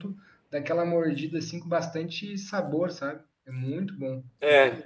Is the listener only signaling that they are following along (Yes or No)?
No